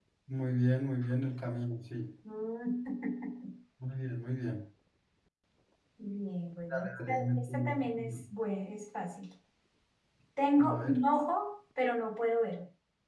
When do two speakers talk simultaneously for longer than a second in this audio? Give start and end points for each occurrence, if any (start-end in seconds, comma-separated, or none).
6.7-8.2